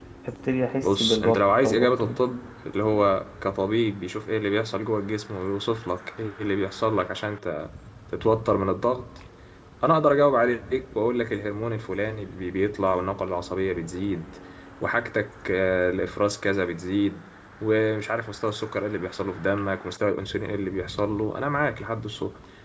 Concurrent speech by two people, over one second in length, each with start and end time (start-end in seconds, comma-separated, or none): 0.8-2.2